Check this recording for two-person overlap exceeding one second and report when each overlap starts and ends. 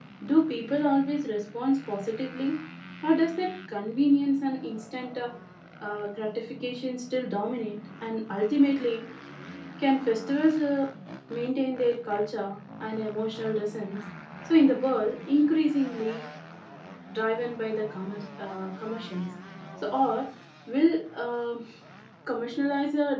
none

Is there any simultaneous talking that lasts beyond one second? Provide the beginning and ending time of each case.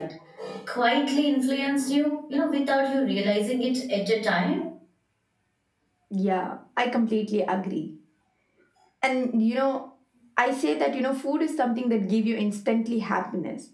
none

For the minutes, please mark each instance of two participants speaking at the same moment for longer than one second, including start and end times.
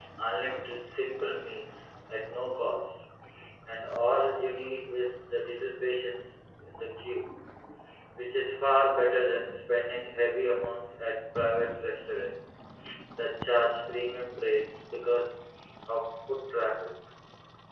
none

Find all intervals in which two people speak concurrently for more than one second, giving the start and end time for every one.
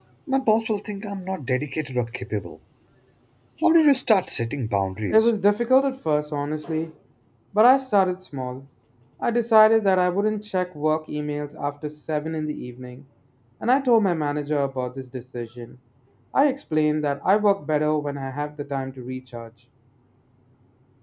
none

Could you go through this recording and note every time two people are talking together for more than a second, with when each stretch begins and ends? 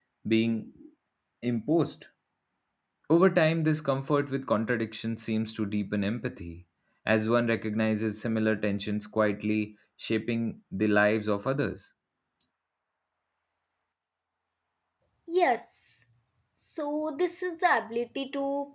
none

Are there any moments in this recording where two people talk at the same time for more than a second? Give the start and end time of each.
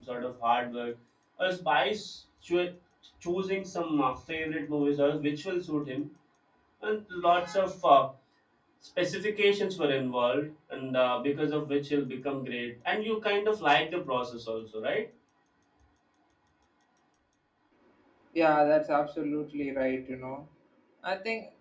none

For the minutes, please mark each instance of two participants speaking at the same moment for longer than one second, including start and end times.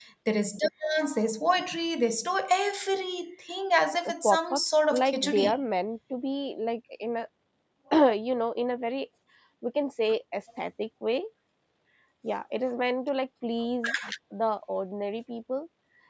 4.2-5.5

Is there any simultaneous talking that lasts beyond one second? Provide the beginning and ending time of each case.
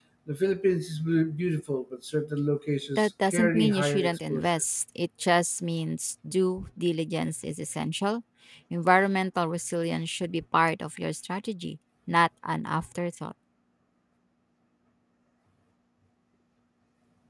3.0-4.5

